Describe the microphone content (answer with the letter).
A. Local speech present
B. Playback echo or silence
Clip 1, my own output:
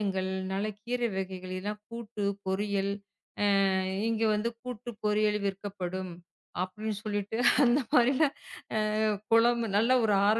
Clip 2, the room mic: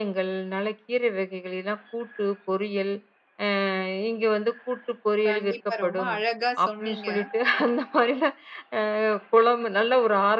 A